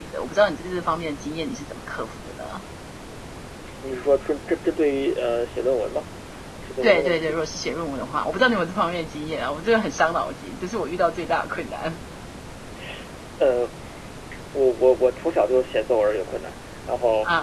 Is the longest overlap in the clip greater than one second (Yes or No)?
No